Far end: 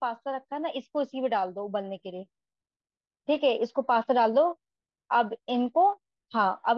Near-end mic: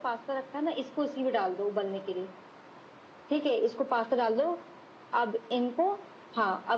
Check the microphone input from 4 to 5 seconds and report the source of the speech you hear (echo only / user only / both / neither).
echo only